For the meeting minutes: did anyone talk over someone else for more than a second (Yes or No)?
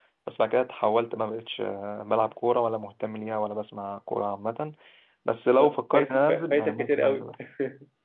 Yes